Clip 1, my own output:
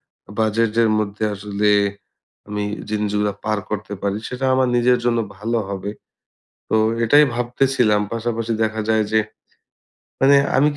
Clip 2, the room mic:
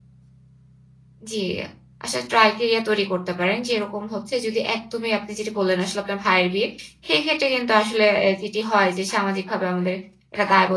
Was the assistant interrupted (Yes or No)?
Yes